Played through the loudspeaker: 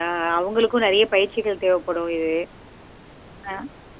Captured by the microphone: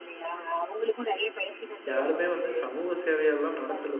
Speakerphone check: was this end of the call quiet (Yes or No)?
No